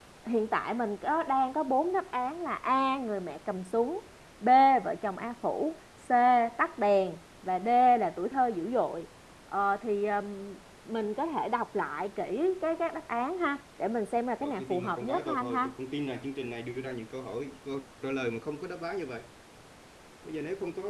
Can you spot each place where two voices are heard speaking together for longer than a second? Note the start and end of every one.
14.4-15.7

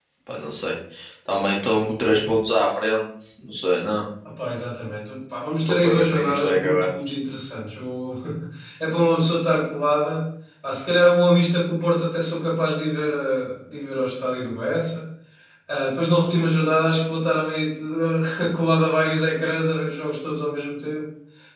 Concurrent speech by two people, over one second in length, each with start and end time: 5.7-6.9

